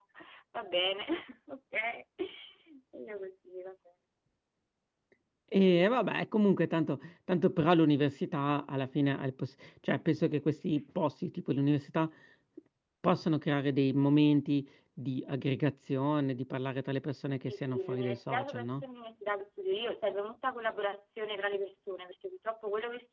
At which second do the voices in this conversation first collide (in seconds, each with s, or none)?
17.5 s